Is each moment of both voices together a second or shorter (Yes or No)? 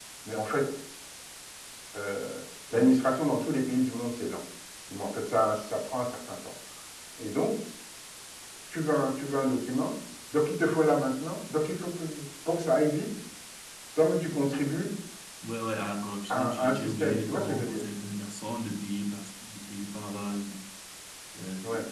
No